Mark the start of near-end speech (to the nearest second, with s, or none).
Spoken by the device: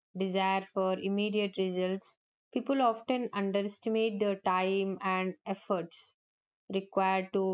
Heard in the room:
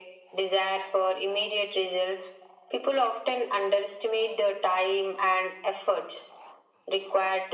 none